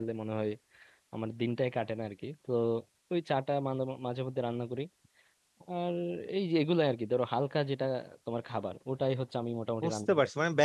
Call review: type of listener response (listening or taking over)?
taking over